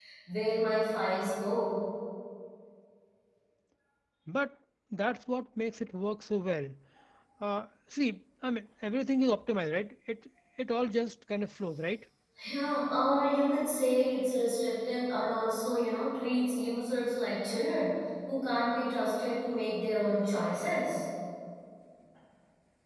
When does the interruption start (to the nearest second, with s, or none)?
none